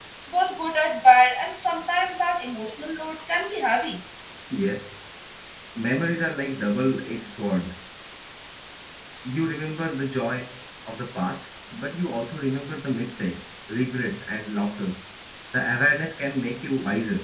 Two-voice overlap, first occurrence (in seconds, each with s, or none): none